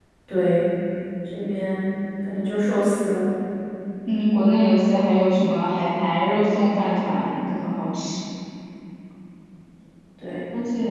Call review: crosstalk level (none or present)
none